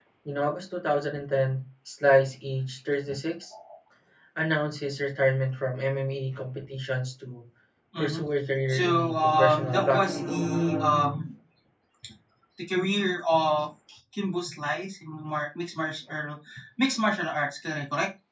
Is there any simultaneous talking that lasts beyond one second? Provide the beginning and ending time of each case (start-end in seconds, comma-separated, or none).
8.8-10.3